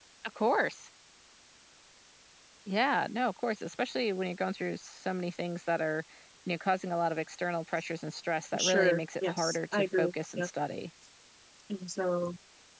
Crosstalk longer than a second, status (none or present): present